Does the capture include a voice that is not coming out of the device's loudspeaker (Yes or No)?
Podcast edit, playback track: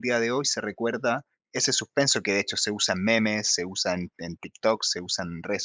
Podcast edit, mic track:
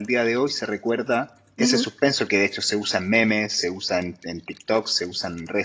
Yes